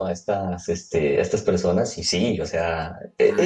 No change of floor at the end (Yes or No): Yes